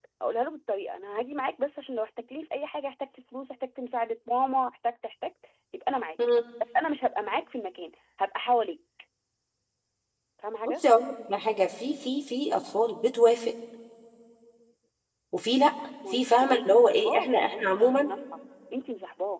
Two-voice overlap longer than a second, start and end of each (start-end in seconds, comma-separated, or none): 16.1-18.1